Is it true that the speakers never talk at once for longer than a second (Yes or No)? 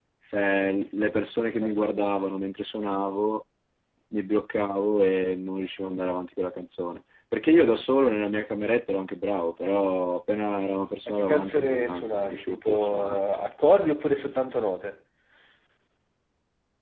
No